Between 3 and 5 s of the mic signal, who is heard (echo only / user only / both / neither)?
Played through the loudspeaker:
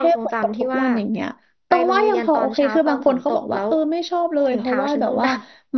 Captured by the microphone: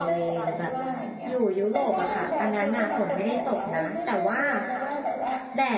both